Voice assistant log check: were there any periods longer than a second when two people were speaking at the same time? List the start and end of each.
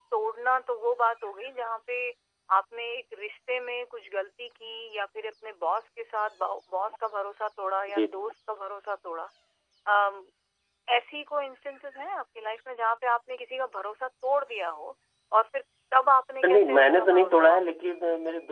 16.4-17.9

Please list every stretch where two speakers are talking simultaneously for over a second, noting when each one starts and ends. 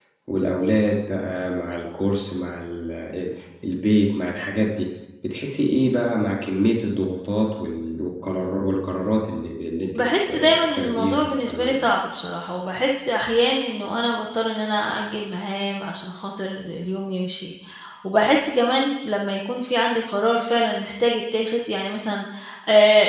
9.9-11.7

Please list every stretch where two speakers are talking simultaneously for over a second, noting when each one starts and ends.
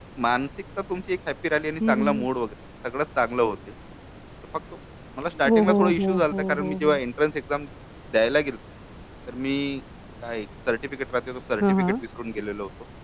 5.5-6.9

